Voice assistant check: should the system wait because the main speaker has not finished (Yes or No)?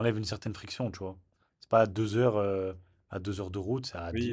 No